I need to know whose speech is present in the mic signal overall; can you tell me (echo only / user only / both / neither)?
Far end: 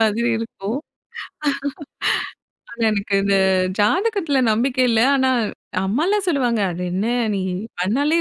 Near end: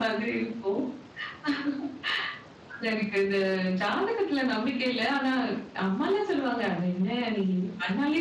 echo only